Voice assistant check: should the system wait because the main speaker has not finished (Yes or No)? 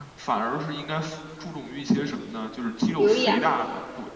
Yes